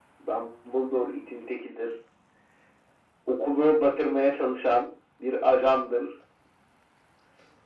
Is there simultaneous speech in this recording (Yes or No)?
No